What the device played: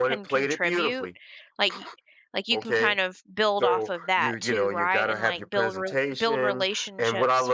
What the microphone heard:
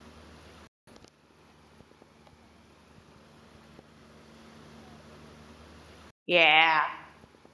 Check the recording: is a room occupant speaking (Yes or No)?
Yes